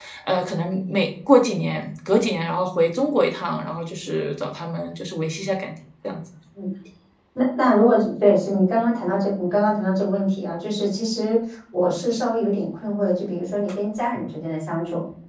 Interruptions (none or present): none